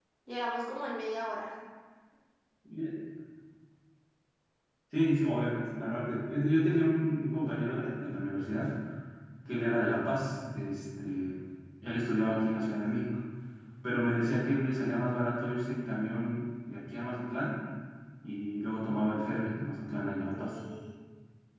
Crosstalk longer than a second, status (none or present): none